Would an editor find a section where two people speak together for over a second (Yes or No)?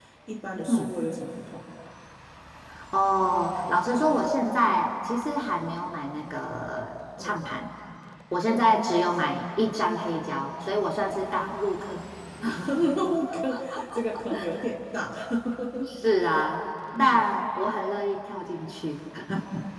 No